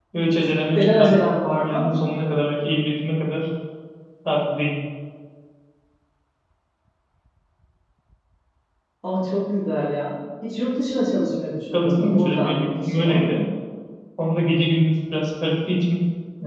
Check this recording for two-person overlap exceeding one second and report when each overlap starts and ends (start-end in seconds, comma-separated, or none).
11.7-13.2